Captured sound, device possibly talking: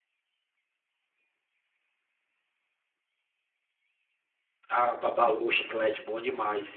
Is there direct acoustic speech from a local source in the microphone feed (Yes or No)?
Yes